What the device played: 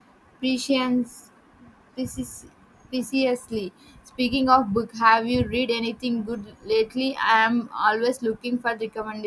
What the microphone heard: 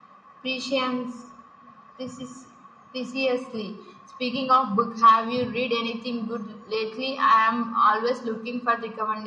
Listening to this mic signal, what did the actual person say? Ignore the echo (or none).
none